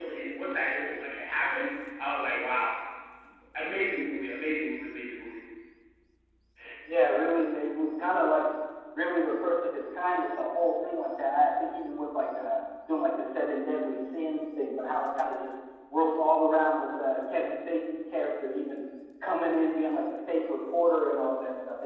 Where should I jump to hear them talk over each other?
none

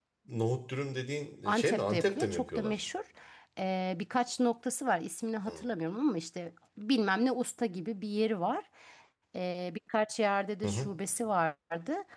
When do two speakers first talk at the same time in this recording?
1.4 s

